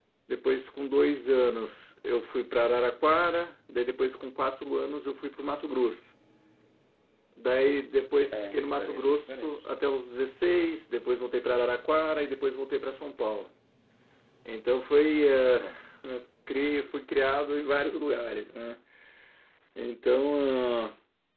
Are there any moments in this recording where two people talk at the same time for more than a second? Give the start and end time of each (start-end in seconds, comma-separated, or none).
8.3-9.6